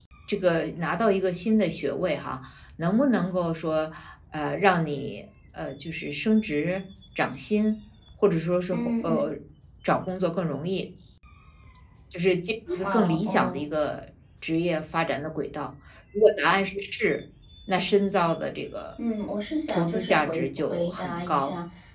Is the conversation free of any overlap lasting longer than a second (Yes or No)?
No